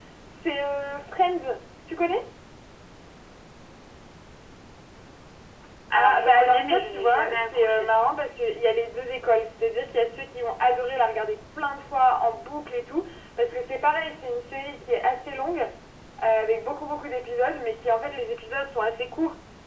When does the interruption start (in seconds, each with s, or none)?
5.9 s